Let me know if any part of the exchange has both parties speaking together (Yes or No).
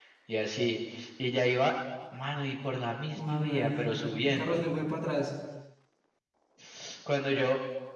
Yes